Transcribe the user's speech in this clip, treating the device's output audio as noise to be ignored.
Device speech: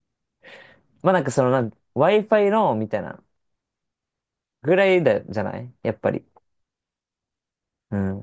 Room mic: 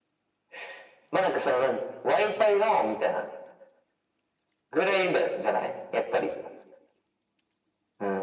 none

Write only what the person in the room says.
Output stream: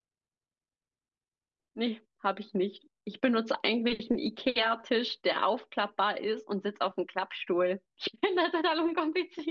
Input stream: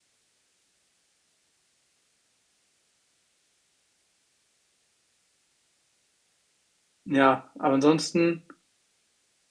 Ja, aber ansonsten,

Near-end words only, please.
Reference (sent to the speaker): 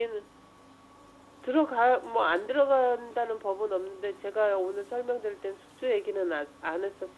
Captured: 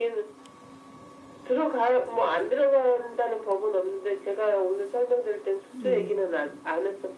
네,

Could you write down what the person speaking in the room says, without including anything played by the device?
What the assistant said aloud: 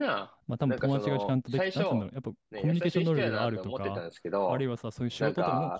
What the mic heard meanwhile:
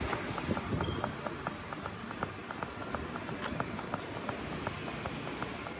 none

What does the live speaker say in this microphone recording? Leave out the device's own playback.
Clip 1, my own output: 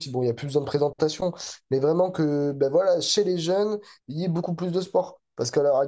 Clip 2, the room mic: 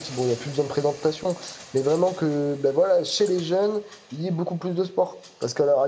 none

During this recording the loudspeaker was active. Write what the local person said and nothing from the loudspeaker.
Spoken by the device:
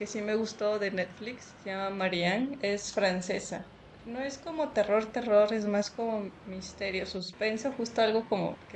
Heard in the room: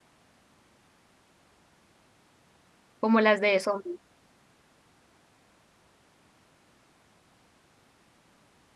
como las de zombies,

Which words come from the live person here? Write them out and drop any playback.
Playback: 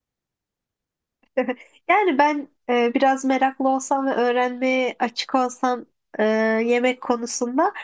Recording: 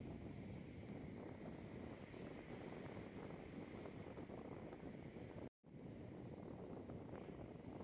none

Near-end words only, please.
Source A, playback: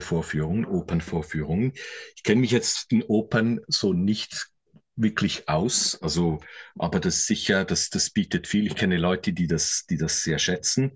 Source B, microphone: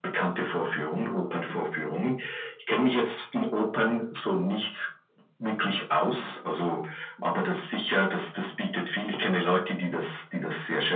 none

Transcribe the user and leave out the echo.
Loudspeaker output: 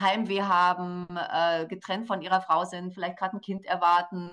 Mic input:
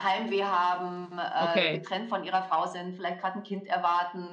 okay,

